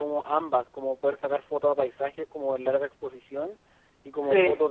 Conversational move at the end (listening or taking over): listening